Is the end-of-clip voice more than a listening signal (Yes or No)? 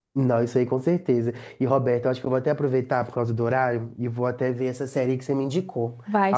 Yes